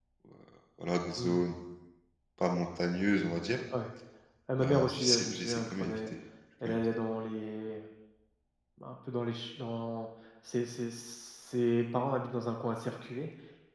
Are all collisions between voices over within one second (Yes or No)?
No